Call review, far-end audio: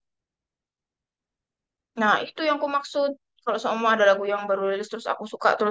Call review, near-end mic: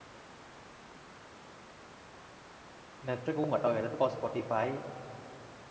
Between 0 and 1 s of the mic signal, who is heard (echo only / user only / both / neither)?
neither